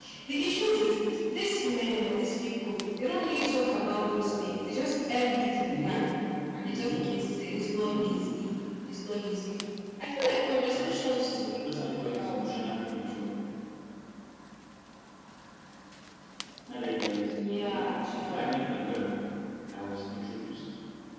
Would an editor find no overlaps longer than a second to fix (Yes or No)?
No